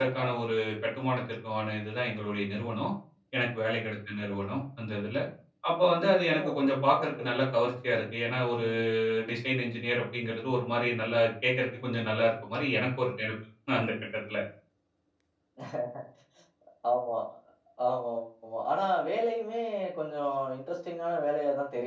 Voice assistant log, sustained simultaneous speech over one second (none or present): none